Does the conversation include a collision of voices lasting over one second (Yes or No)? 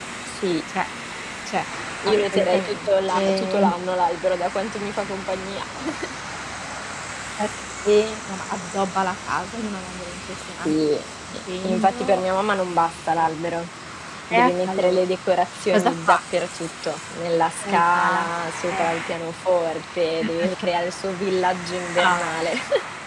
Yes